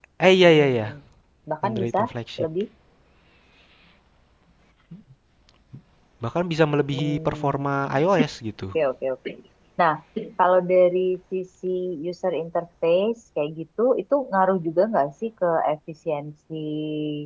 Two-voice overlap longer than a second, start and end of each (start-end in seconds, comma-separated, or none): 6.9-8.1